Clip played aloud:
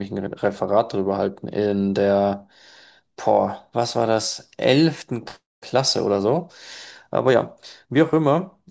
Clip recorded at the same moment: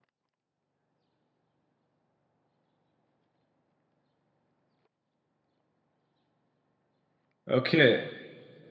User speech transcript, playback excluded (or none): Okay,